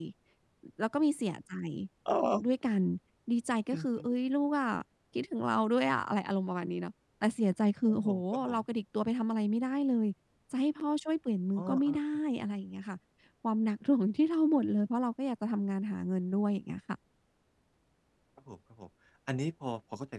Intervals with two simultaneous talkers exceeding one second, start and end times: none

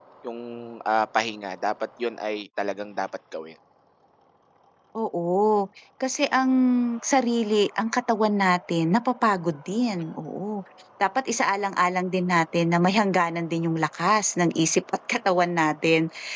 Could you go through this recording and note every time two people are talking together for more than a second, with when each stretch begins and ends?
none

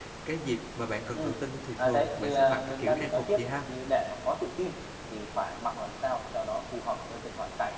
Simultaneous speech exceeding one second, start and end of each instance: 1.8-3.4

